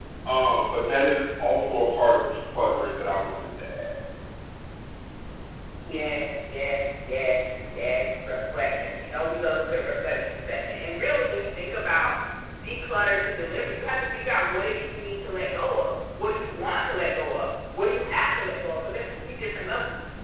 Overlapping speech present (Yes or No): No